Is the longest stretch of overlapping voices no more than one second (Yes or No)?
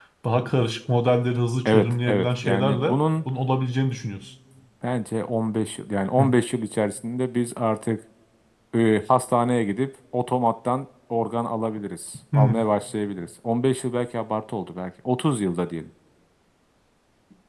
No